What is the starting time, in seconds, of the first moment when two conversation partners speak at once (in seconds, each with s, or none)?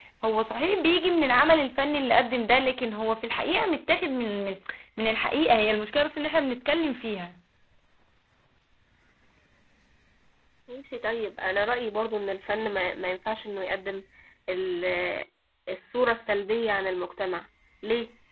none